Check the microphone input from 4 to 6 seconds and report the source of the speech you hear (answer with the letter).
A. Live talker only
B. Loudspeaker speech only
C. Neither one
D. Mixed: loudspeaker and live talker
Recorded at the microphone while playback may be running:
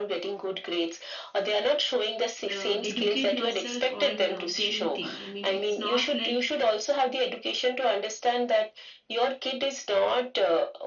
D